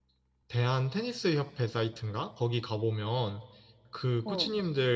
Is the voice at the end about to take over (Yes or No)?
No